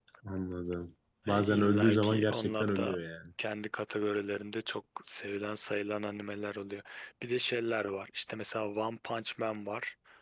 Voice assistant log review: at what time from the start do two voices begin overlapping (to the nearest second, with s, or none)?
1 s